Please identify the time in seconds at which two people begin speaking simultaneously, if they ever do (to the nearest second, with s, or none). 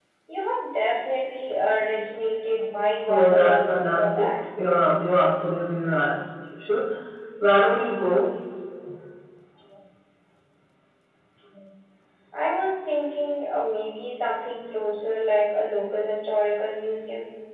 3 s